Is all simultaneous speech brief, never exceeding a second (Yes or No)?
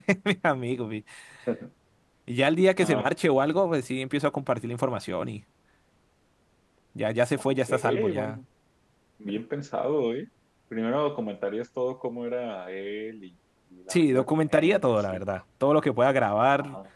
No